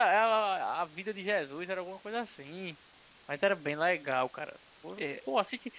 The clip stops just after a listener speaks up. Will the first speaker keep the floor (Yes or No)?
Yes